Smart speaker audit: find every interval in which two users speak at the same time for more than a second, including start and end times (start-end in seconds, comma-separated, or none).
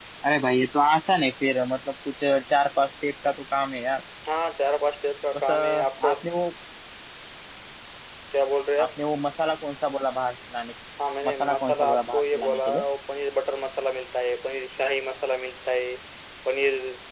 11.2-12.8